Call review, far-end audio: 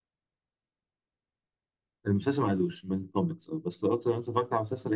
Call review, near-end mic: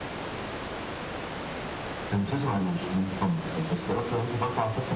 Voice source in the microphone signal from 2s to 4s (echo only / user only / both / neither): echo only